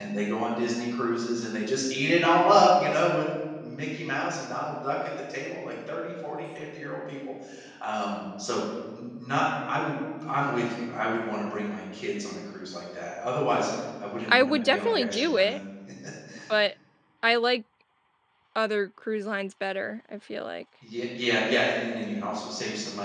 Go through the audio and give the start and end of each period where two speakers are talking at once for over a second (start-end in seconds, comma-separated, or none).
14.3-15.6